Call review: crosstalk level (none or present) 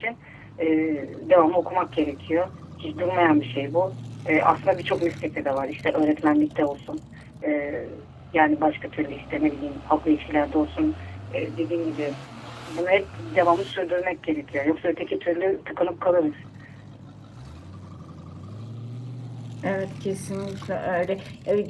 none